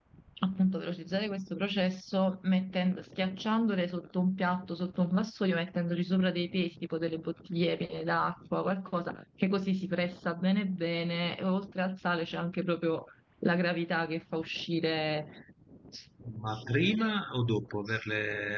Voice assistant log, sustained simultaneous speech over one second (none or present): none